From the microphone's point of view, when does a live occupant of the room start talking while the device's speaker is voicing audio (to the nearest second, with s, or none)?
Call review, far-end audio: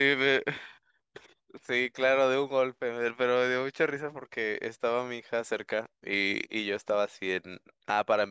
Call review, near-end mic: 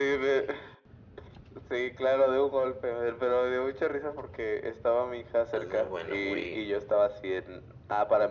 6 s